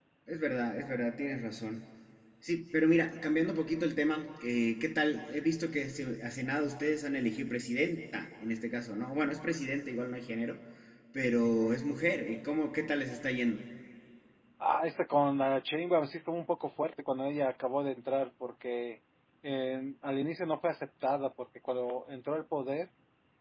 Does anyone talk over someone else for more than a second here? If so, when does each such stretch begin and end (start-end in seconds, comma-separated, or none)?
none